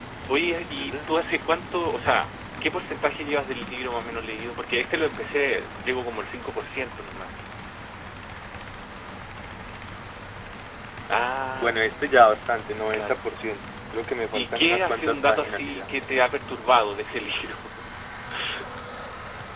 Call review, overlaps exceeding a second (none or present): present